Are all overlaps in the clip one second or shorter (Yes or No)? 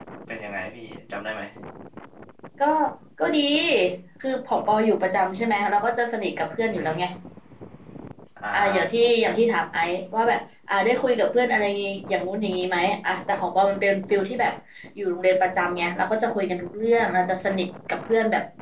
Yes